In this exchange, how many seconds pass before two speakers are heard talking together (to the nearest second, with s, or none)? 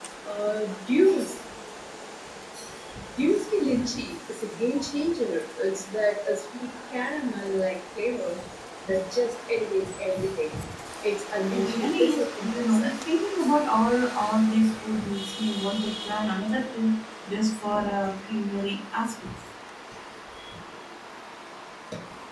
11 s